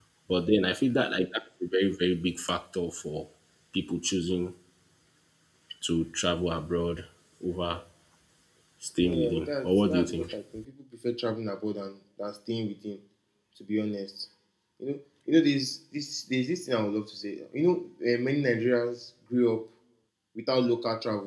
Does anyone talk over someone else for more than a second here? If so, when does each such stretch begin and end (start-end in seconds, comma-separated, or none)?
9.0-10.3